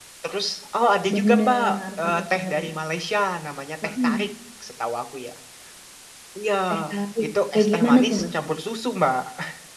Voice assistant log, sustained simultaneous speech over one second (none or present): present